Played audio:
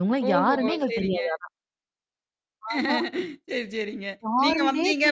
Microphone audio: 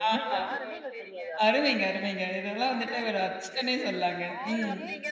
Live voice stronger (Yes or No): Yes